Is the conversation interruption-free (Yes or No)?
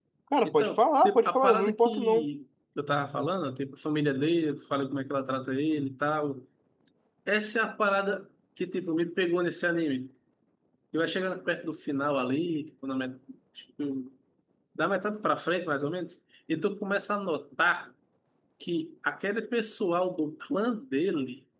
No